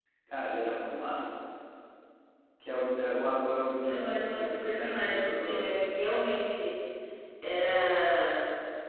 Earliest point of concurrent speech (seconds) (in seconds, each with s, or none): 3.9 s